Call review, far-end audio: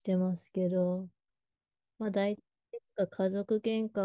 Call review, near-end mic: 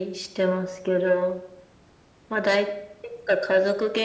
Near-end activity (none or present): none